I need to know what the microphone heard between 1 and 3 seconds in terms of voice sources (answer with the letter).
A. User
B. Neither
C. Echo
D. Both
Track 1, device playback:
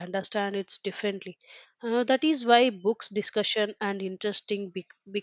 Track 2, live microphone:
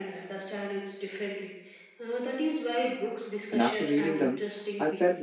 C